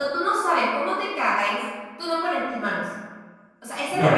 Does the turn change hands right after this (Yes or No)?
No